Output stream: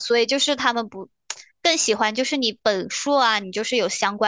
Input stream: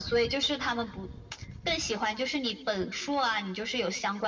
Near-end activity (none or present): none